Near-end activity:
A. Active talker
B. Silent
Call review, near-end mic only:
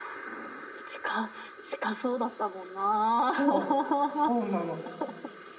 A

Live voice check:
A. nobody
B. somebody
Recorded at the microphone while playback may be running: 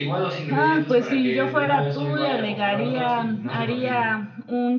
B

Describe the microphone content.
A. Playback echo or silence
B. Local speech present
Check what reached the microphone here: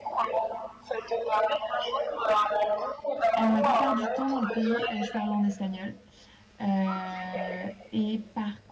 B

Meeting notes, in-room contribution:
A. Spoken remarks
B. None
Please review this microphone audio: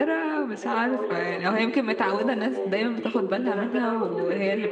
A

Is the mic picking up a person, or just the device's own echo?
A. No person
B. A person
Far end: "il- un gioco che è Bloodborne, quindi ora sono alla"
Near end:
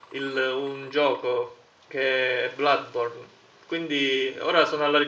A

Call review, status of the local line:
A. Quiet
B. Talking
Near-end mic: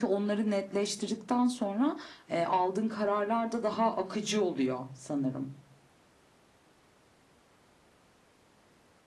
A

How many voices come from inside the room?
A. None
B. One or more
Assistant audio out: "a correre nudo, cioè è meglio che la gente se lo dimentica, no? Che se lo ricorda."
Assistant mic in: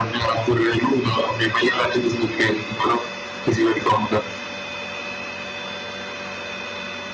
A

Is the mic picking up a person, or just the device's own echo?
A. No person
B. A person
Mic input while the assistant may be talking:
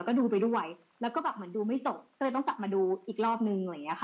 A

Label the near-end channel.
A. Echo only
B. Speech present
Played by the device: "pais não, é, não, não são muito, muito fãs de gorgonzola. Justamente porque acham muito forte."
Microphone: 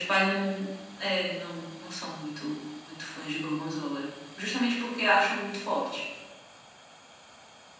A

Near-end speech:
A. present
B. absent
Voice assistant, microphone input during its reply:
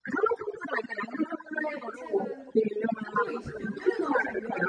A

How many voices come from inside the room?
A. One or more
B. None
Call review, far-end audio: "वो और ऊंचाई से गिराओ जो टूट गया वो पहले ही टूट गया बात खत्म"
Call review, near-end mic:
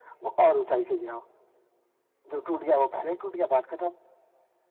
B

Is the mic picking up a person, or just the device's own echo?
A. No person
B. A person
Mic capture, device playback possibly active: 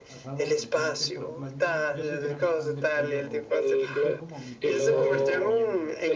B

